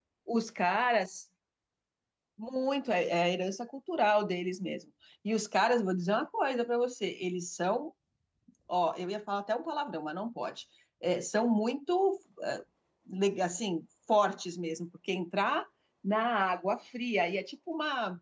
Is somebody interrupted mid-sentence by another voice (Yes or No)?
No